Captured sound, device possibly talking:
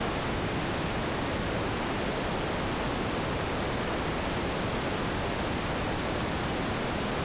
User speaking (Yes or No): No